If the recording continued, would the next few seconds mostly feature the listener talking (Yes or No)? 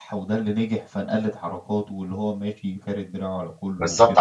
Yes